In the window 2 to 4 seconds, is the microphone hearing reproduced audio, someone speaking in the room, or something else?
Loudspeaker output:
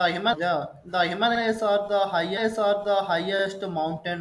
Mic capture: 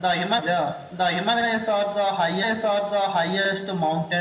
echo only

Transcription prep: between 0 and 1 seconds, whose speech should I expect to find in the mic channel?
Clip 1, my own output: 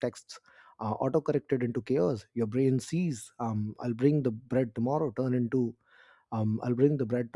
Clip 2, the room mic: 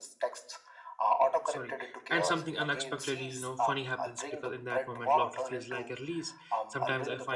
echo only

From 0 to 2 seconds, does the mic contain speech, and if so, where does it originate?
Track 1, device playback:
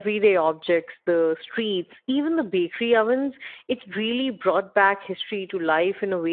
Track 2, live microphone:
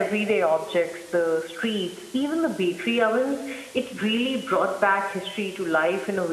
echo only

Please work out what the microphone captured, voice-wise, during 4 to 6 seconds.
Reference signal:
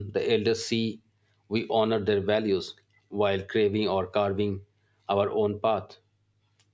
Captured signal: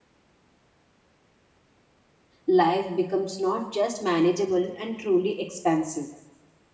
user only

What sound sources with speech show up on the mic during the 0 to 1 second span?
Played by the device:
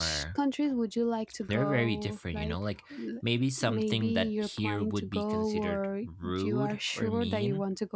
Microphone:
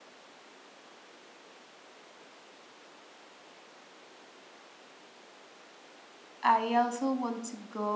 neither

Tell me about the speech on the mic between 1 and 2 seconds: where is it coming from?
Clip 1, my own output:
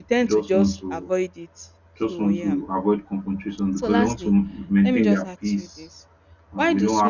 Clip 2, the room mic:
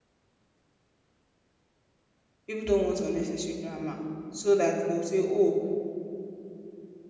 neither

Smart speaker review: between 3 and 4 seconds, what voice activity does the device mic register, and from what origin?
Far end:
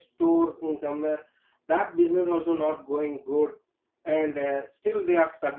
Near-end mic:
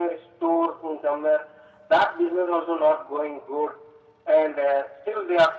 echo only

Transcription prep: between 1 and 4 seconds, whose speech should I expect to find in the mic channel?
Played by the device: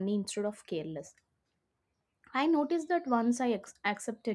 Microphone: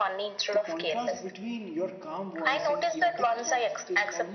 both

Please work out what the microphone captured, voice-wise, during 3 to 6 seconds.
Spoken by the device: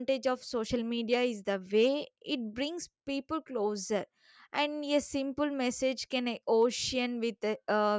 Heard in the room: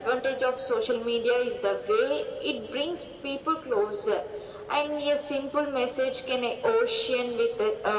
echo only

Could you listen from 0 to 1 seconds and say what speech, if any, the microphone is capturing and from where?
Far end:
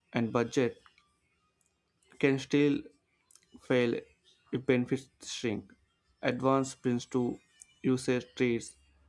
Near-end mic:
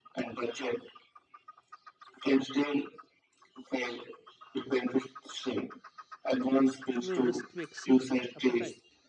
echo only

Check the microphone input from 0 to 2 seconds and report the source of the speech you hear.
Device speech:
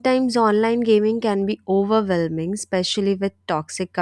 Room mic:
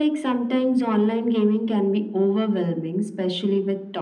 echo only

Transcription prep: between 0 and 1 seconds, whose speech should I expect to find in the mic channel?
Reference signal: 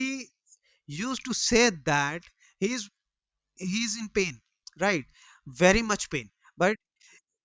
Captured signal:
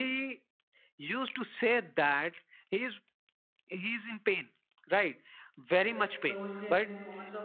echo only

